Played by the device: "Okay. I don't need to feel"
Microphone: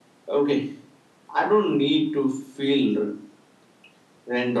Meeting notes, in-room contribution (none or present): none